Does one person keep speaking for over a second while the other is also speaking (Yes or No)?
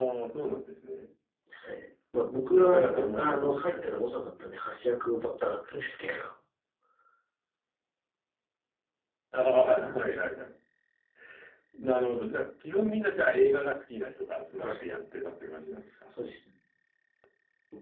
Yes